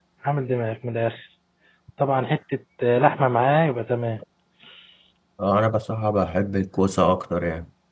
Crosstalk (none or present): none